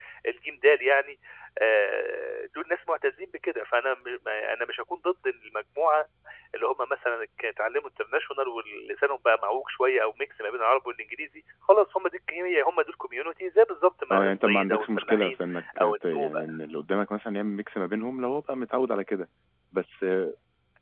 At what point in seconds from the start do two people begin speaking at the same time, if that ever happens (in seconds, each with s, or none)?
14.1 s